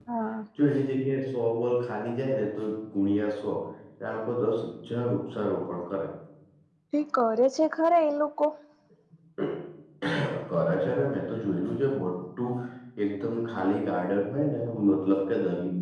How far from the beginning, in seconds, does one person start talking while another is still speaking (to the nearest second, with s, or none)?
none